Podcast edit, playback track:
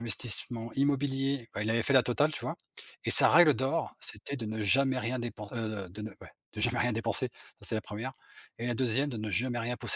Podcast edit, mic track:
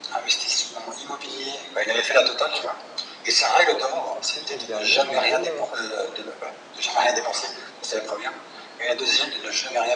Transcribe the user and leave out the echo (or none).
parce que c'est le dernier et ils veulent l'avoir.